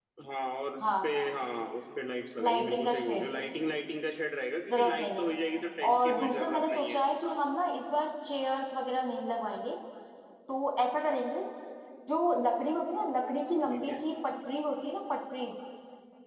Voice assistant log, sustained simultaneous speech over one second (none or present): present